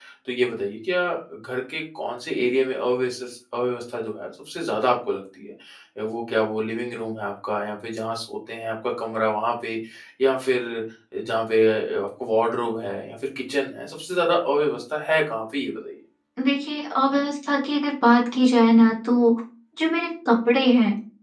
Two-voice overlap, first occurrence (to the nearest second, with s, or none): none